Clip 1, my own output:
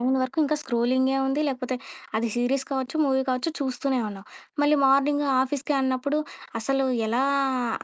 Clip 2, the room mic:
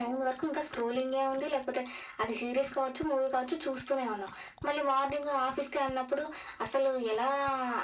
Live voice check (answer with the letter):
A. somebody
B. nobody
B